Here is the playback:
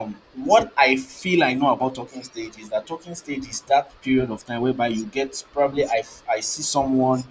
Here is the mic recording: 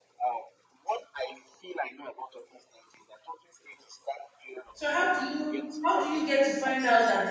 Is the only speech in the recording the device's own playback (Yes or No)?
No